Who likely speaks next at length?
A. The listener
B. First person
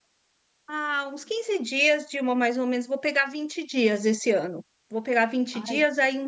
B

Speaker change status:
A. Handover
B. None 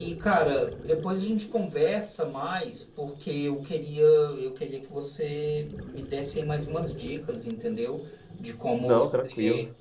B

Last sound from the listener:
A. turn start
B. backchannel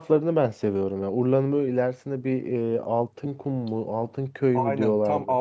A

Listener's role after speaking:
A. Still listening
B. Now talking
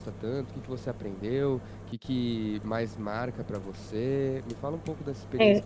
A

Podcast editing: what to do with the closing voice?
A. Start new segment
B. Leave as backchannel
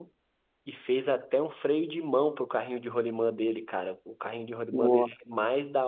B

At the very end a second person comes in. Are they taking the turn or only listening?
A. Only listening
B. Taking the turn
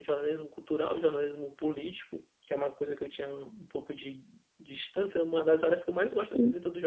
A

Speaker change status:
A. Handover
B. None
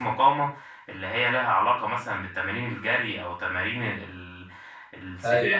B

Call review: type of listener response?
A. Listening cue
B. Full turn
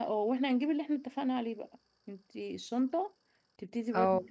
A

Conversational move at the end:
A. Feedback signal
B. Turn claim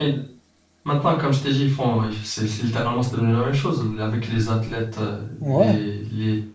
A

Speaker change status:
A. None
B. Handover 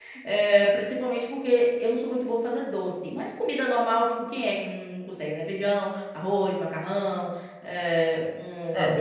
B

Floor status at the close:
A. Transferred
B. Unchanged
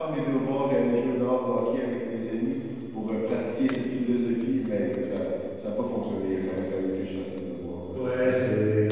A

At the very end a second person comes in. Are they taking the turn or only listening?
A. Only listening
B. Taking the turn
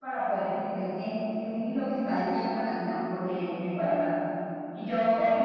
A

